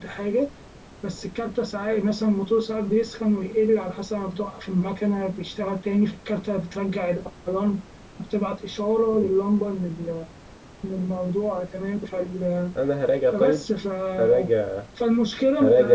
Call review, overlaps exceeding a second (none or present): none